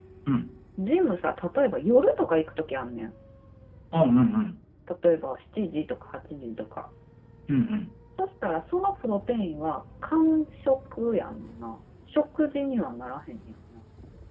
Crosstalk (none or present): none